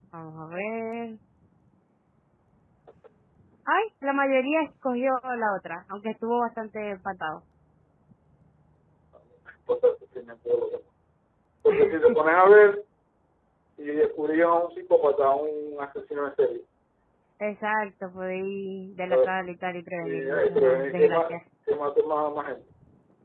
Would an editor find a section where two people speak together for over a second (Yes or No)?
Yes